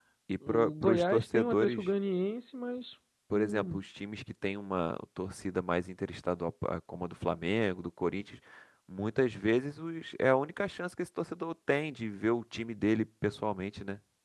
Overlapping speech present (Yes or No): Yes